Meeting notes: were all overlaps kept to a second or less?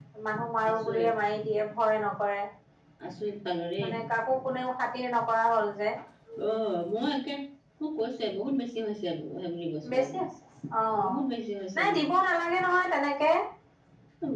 Yes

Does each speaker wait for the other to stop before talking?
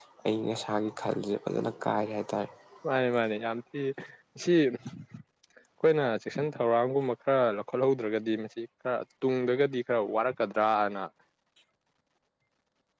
Yes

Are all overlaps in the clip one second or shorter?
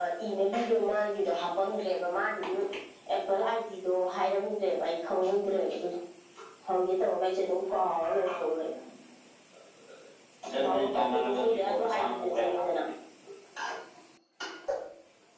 No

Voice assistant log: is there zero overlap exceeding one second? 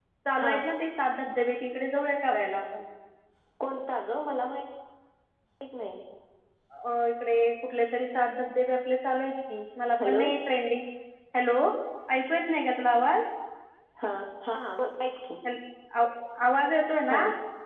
Yes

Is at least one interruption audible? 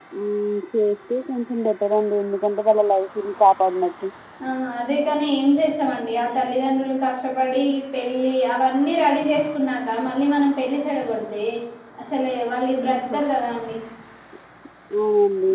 No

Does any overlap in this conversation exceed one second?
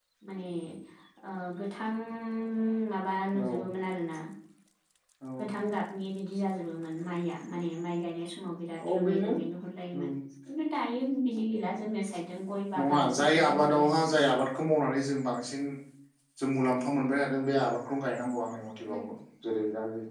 Yes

